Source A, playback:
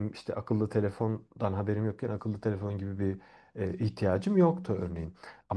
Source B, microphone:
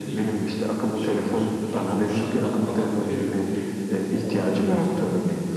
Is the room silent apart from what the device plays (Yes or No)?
No